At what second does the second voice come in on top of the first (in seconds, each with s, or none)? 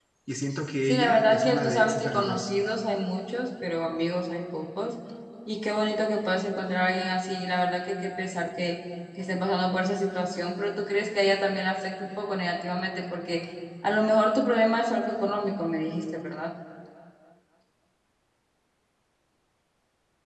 0.8 s